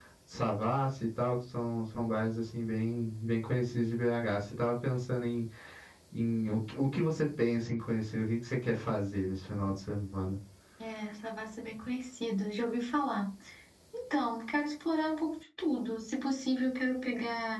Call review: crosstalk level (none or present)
none